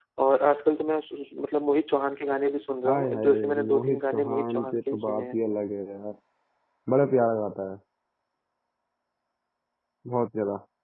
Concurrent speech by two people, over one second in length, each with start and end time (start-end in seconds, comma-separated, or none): 2.9-5.4